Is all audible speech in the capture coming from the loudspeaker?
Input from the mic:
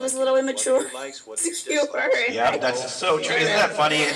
No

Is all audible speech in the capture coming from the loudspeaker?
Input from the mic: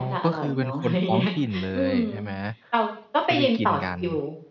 No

